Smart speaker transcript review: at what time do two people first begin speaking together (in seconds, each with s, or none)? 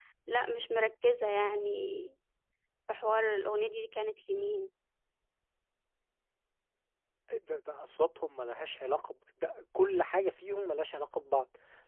none